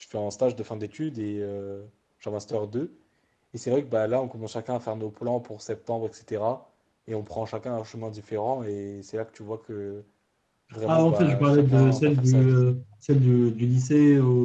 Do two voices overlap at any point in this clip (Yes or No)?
Yes